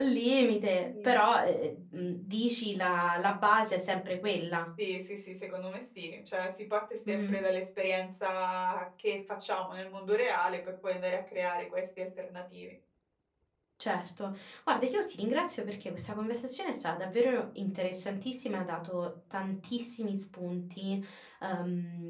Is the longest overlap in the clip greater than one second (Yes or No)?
No